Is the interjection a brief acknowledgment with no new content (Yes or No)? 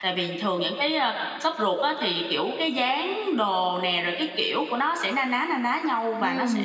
No